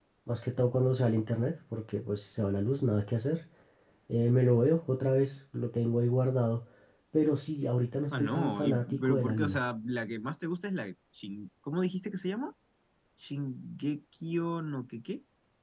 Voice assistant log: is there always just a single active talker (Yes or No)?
No